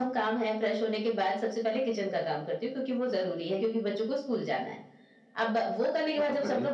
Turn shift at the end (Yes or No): No